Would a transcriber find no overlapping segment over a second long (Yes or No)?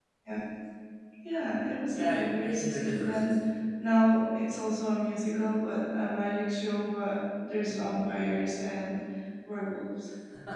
No